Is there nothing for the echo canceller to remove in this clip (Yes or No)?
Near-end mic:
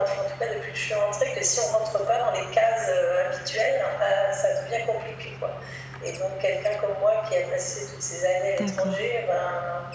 No